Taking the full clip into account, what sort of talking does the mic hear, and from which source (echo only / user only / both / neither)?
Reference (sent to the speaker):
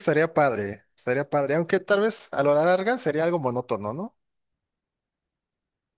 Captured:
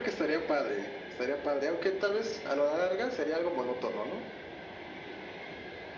echo only